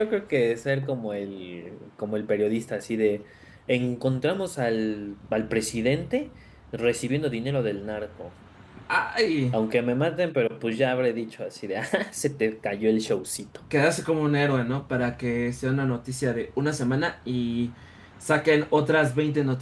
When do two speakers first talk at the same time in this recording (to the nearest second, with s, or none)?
none